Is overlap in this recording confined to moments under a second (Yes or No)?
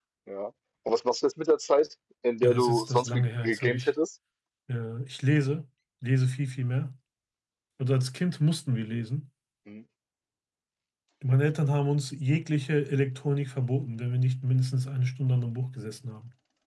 No